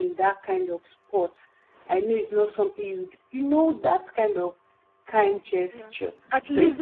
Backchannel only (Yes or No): No